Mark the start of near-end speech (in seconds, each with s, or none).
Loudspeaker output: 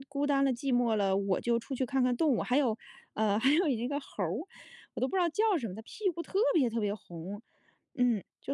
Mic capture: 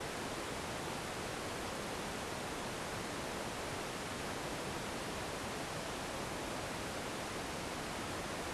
none